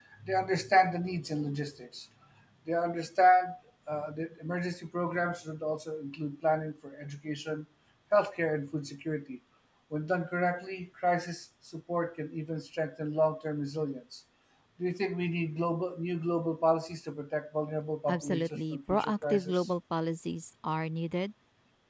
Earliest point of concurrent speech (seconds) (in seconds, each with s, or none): 18.1 s